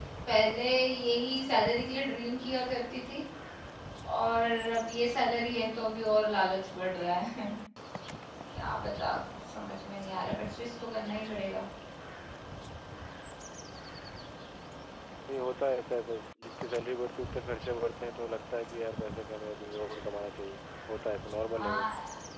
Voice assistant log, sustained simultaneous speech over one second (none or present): none